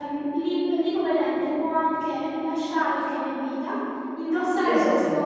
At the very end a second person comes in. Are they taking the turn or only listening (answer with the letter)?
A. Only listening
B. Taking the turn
A